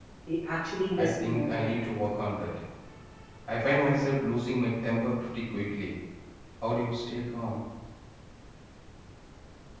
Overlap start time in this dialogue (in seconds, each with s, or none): 0.9 s